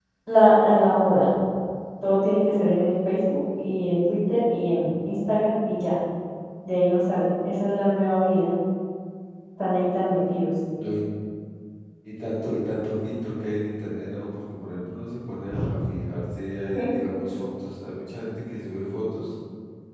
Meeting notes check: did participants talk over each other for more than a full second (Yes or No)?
No